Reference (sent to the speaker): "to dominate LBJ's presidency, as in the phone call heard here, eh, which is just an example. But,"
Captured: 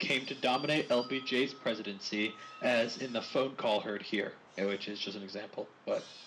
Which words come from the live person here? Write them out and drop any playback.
none

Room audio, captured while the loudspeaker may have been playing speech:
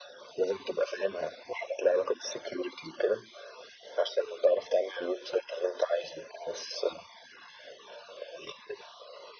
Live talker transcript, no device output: none

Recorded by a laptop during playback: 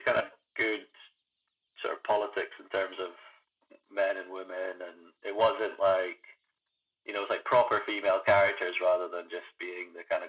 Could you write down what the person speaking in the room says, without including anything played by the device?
none

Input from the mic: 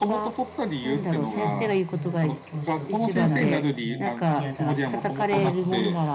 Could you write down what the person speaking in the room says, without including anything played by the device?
ど、どんななんだろうまだせ教師を続けたいとかもう嫌だとかあるのかな

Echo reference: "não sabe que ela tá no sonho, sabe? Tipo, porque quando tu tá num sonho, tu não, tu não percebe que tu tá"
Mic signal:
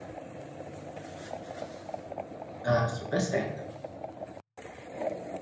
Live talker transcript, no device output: dá super certo.

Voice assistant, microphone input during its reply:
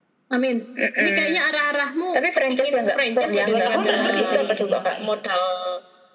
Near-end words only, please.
dua tahun redup ya tadi katanya kakak ya.

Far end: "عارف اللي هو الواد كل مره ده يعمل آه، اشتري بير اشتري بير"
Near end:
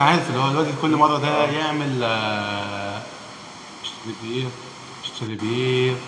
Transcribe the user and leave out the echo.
بيبو اه

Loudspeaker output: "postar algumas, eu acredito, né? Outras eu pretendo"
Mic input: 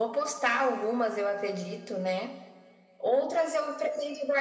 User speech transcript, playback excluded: none

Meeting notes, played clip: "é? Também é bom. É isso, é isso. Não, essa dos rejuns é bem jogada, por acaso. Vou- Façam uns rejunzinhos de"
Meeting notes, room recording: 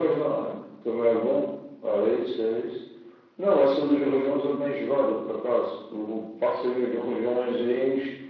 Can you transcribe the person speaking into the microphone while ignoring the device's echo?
none

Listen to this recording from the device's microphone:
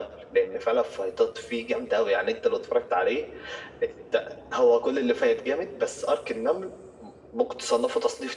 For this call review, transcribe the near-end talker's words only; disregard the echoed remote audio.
none

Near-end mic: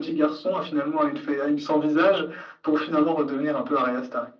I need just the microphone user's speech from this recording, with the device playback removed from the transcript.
none

